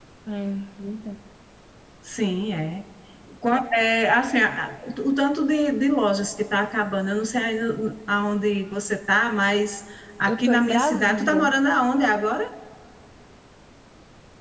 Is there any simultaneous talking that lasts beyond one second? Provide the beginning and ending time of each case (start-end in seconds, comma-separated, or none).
10.3-11.5